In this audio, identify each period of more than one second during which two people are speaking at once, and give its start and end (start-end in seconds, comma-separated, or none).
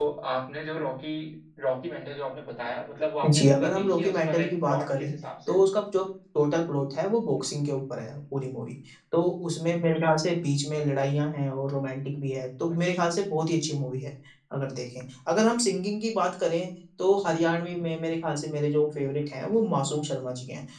3.3-5.1